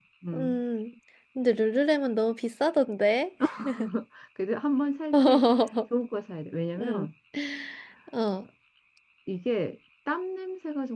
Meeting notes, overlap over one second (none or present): none